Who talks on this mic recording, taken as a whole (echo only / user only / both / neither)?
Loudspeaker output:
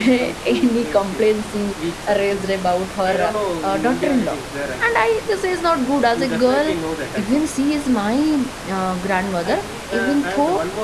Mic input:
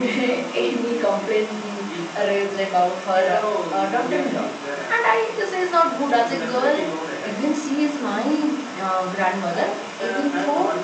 echo only